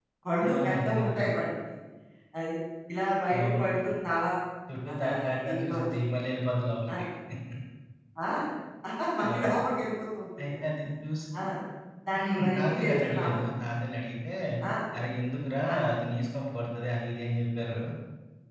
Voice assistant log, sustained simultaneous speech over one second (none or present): present